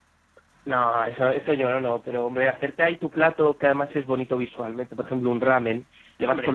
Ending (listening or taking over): listening